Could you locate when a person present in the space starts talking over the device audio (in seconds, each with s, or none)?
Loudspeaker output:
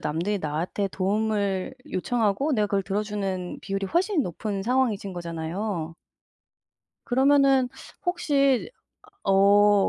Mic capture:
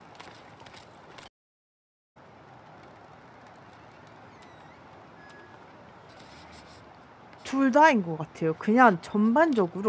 7.4 s